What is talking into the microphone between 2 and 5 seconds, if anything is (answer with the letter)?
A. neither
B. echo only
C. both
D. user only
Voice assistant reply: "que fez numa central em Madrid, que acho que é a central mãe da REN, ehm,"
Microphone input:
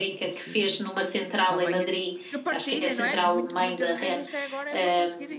C